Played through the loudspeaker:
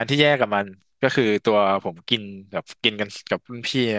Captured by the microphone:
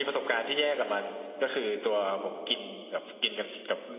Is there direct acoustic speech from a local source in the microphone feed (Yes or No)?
No